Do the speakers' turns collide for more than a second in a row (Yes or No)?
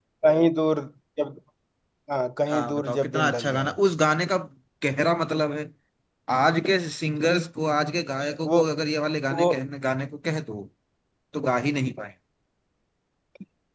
Yes